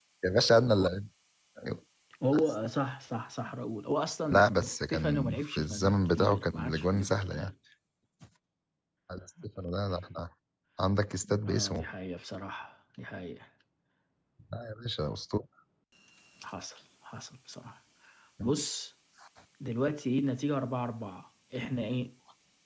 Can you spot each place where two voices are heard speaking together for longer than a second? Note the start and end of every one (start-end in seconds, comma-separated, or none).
4.3-7.5